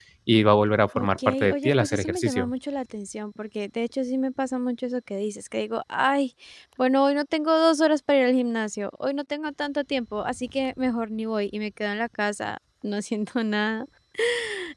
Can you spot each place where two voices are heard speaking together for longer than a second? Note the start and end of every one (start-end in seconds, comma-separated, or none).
0.9-2.5